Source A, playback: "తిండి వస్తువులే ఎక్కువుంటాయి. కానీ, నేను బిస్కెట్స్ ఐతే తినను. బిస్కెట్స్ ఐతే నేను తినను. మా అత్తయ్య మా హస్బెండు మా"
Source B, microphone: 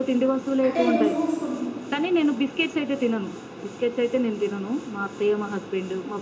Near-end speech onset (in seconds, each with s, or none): 0.7 s